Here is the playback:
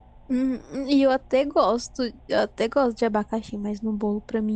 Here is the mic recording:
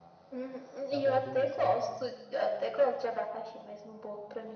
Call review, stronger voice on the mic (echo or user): echo